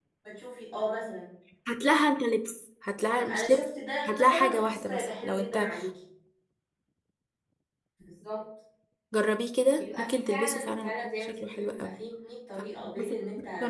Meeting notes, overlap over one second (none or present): present